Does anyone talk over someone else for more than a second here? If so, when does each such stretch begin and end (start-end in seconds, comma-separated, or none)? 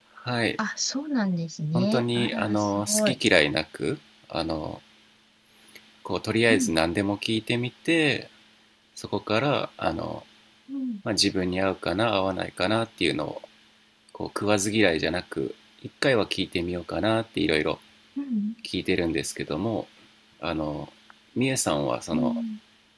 1.7-3.2